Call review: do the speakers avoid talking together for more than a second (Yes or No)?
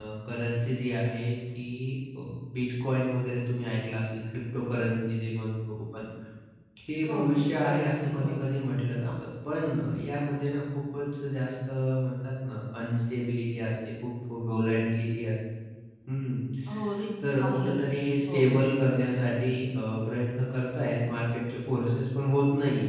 No